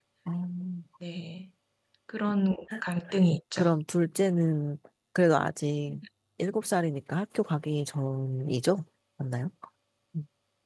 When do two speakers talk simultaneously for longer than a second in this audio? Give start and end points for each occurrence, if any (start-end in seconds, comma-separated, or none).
none